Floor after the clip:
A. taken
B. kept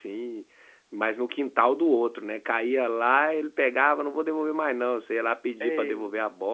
B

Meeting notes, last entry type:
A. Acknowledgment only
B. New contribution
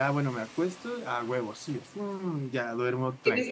B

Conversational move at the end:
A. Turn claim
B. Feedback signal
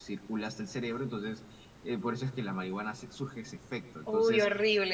A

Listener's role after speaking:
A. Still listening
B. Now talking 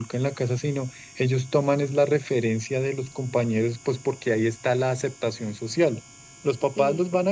A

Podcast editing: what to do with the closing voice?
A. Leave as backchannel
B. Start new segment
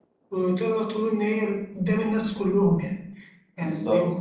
A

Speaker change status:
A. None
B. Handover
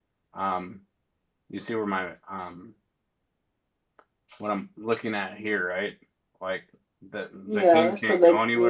B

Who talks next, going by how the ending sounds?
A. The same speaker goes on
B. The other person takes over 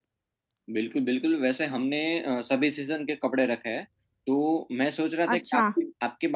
A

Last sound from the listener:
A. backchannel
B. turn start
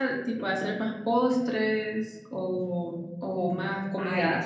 B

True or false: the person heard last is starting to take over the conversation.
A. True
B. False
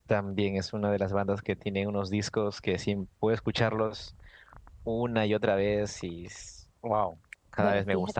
A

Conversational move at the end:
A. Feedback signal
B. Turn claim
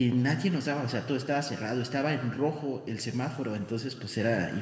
A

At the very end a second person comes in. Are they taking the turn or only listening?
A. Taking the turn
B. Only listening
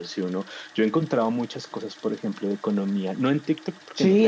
A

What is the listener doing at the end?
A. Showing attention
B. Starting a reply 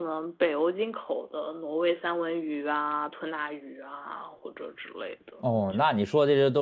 B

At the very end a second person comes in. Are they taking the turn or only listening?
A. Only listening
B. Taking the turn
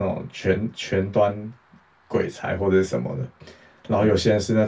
A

